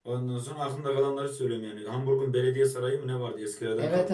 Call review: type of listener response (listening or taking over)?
taking over